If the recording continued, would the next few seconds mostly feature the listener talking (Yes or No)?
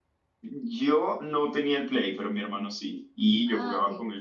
No